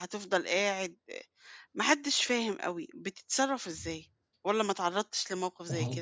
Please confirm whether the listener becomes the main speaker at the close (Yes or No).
Yes